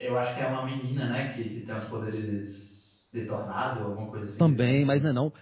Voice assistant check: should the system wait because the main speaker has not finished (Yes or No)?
No